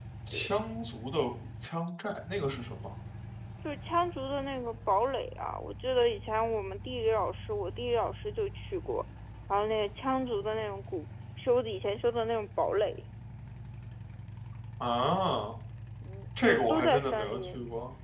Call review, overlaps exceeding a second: present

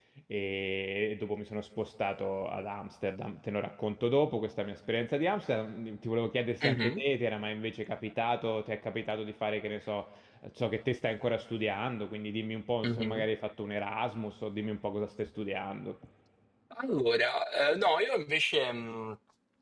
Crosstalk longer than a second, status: none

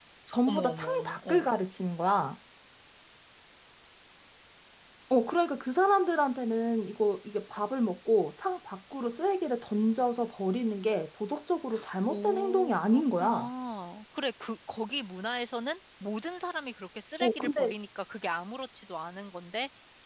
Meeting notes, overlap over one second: present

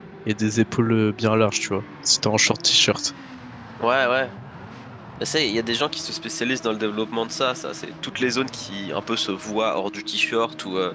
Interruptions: none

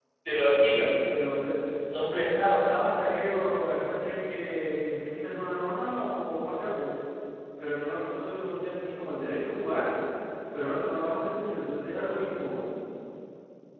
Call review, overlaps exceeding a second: none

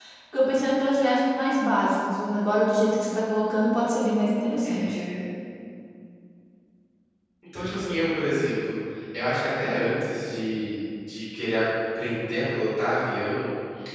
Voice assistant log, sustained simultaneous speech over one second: none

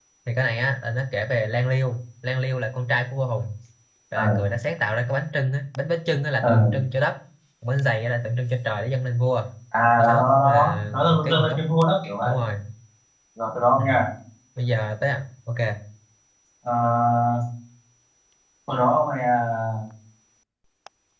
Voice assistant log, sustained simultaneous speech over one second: present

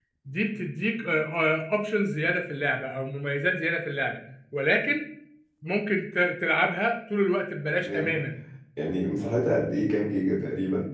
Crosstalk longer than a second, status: none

